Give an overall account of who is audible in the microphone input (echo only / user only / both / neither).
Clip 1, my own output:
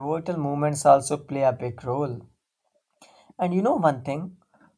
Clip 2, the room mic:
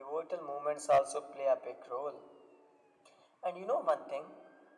echo only